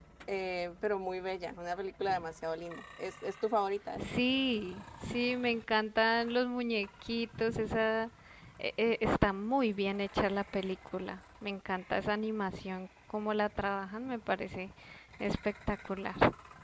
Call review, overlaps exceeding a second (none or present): none